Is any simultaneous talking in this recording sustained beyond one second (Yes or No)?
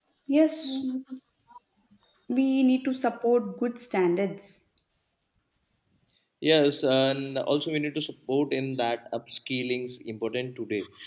No